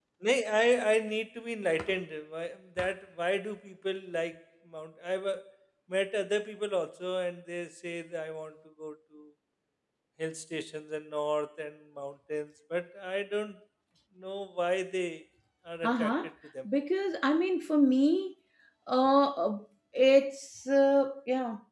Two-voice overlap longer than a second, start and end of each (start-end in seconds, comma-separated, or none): none